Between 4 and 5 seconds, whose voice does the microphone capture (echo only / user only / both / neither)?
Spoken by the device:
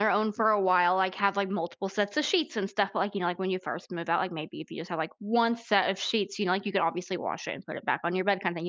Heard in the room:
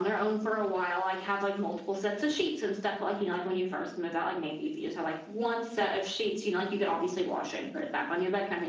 echo only